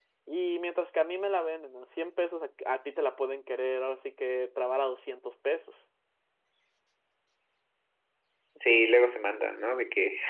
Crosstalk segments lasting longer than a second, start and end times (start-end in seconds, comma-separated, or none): none